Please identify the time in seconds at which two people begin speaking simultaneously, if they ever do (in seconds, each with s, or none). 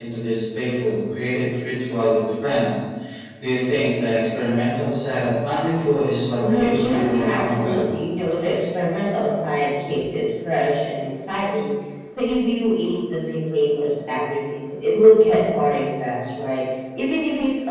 6.4 s